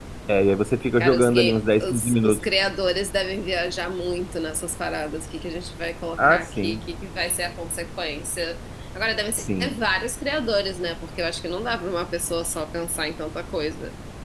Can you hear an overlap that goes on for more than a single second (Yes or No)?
Yes